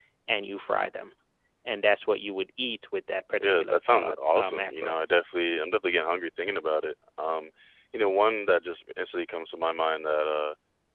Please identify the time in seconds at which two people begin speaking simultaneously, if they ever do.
3.4 s

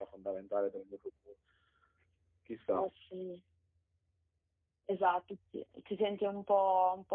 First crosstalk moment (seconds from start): none

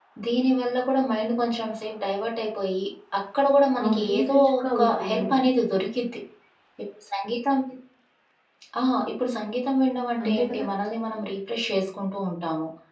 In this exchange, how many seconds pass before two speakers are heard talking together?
3.8 s

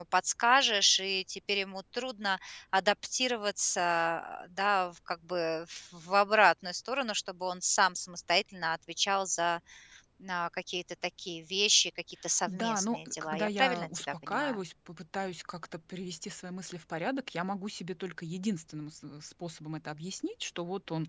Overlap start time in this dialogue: 12.5 s

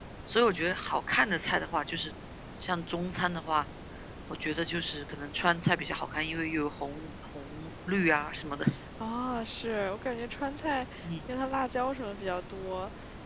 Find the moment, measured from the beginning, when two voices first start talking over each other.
none

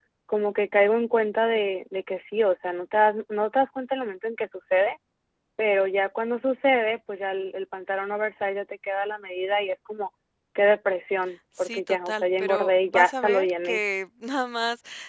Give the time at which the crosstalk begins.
11.6 s

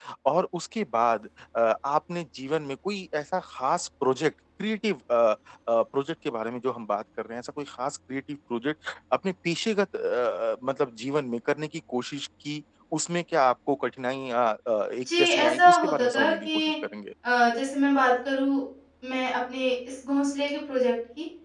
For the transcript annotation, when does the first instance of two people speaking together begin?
15.0 s

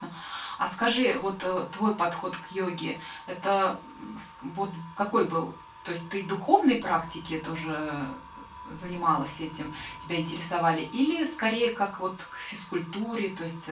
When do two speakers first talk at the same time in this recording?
none

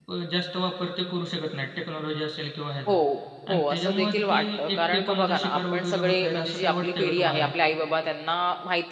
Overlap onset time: 3.5 s

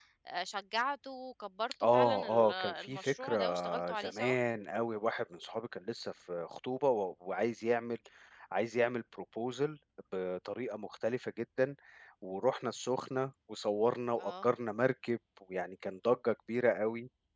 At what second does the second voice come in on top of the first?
1.9 s

